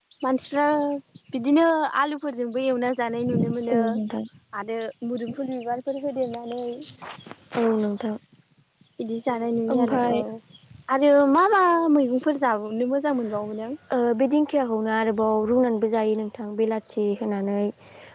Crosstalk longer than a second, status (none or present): none